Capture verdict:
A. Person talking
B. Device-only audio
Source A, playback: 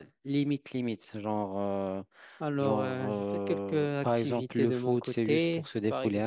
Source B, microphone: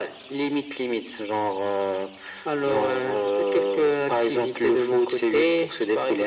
B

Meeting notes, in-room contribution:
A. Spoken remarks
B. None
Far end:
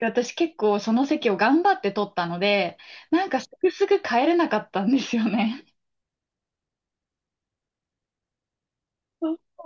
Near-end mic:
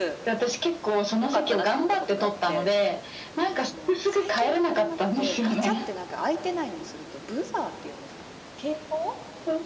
A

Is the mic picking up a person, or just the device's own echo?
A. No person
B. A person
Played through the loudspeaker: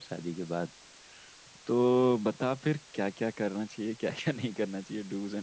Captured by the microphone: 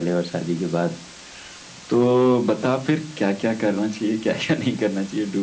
A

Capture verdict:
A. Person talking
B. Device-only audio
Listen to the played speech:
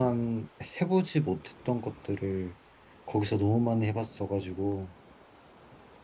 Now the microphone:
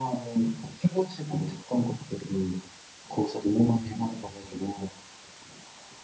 B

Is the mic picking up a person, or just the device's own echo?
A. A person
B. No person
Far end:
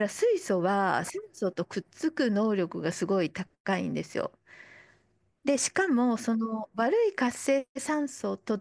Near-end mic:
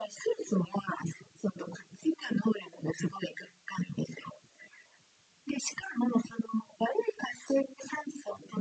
B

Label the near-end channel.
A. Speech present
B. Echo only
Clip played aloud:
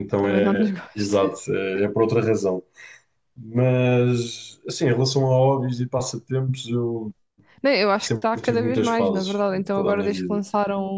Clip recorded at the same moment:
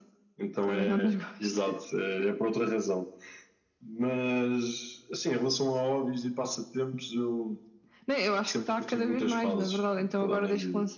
B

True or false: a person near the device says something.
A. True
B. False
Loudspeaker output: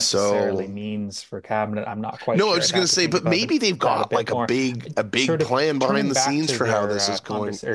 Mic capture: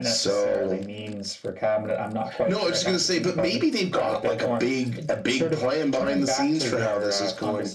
B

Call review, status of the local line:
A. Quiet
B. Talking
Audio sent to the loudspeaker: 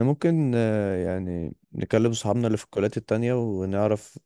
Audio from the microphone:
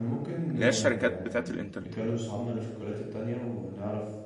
B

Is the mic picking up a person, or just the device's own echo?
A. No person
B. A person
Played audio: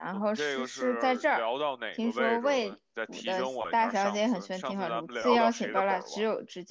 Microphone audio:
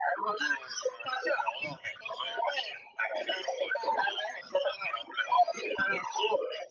A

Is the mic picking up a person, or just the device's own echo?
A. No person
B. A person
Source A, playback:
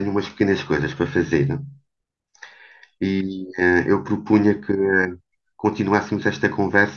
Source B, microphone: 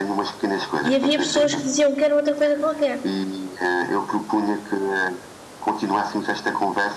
B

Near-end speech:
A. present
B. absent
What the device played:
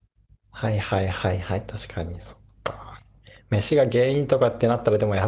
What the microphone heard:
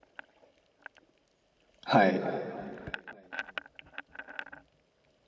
A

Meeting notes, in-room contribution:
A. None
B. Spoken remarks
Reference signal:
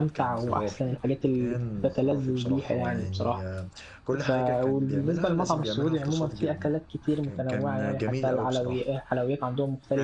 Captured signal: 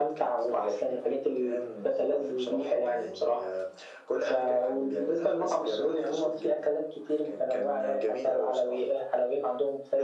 A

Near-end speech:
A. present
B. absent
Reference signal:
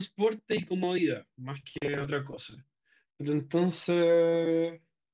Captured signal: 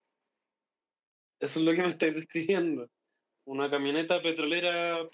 A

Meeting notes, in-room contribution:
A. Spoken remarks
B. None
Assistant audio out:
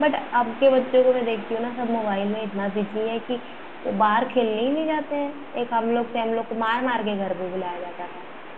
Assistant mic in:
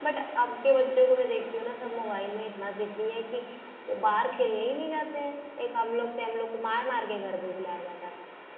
B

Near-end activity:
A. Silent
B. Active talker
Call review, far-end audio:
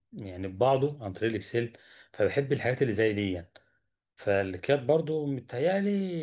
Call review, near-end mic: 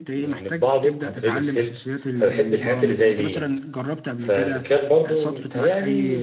B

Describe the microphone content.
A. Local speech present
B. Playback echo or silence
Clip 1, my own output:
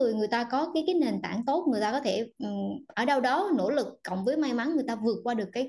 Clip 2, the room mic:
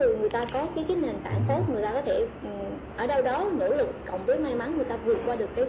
A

